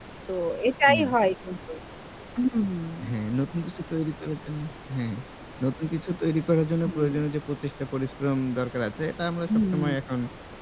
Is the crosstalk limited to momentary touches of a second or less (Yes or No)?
Yes